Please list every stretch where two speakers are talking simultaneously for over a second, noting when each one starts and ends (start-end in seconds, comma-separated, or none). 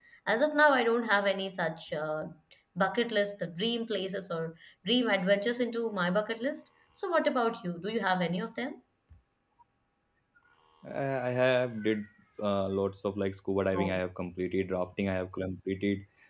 none